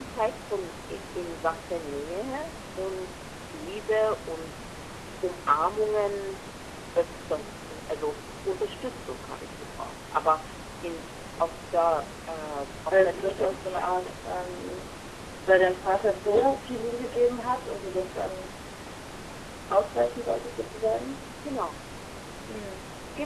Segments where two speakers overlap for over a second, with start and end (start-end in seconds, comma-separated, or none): 12.9-14.2